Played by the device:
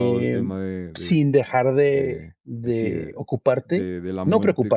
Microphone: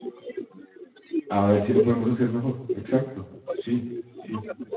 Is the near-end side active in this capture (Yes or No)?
Yes